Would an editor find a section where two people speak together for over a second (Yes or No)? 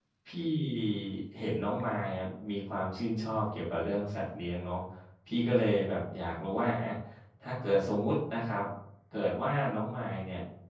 No